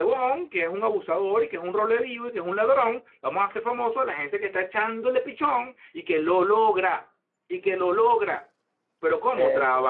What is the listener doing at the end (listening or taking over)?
listening